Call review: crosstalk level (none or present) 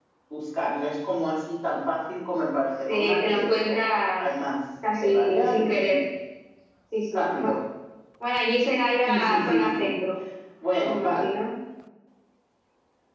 present